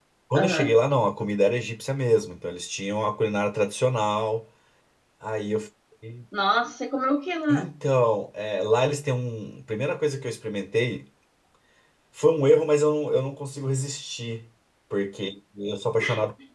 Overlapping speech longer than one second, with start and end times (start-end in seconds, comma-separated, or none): none